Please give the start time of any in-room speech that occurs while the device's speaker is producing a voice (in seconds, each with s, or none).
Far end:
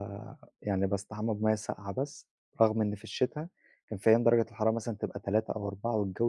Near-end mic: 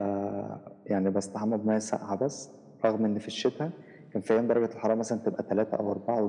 none